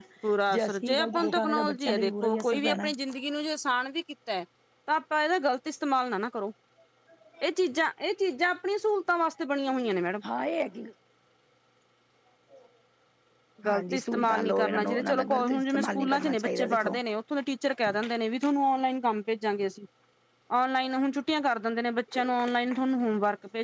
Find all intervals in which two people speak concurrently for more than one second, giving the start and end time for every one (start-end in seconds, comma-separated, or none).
0.5-2.9, 13.7-17.0